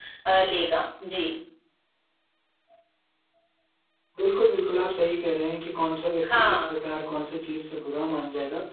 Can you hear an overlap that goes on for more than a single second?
No

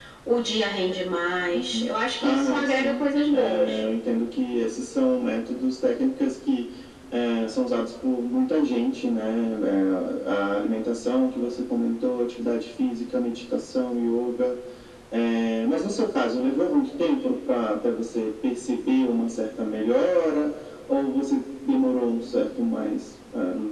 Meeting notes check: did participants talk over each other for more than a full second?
Yes, from 1.5 s

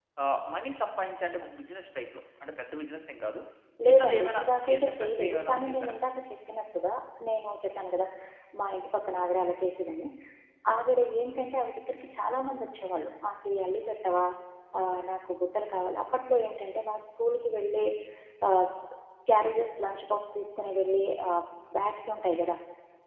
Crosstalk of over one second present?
Yes, from 3.9 s

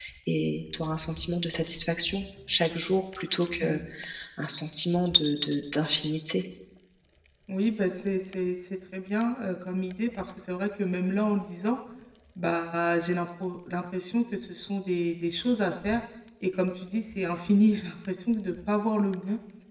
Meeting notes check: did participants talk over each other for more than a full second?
No

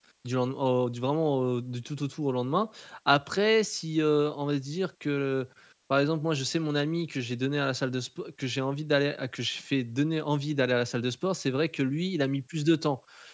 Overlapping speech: No

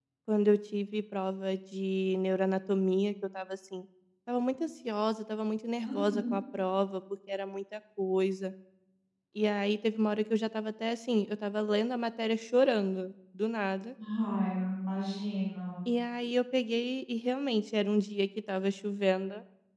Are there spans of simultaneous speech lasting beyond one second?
No

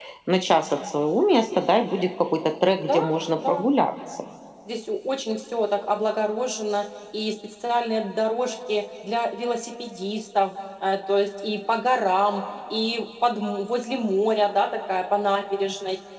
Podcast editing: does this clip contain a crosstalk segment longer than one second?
No

